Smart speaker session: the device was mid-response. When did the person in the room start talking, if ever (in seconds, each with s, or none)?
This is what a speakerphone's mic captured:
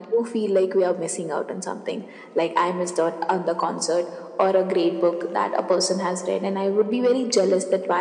none